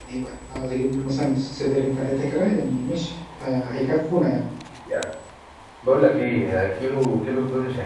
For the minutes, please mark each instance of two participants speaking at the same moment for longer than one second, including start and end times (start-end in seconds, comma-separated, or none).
none